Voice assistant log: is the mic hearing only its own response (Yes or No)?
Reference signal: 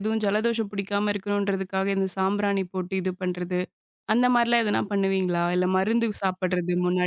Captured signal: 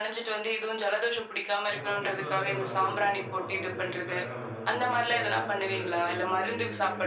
No